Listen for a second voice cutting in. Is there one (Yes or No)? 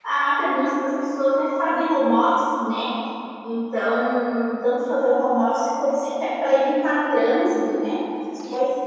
No